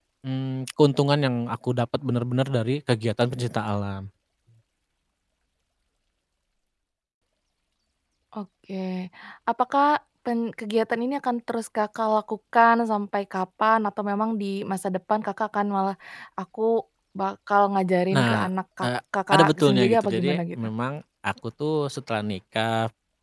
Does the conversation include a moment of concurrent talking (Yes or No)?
Yes